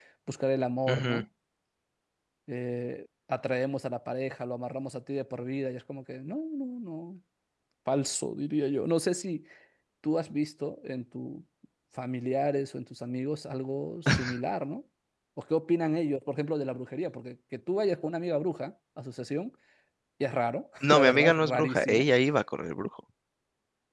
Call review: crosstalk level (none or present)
present